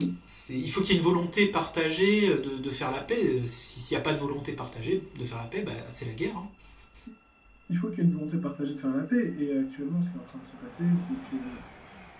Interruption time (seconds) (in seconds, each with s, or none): none